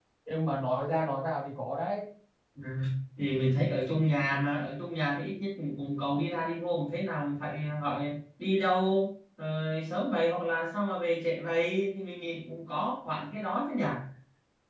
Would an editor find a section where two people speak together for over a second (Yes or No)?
No